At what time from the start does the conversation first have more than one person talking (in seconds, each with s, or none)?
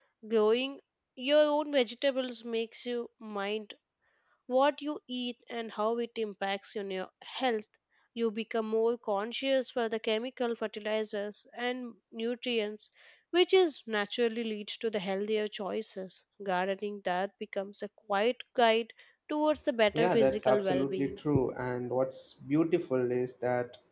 19.9 s